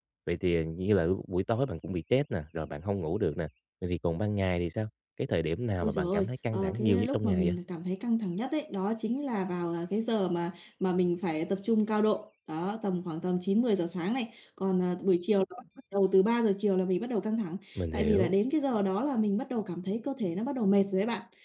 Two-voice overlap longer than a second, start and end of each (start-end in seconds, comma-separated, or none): 5.8-7.6